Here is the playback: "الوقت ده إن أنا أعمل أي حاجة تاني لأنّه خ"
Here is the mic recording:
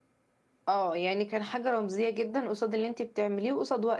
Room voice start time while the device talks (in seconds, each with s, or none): 0.7 s